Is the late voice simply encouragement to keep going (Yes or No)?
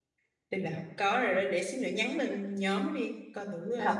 No